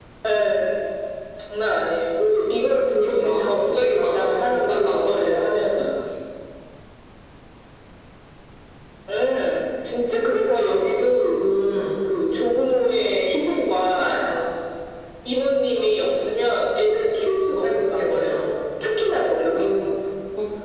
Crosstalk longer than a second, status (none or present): present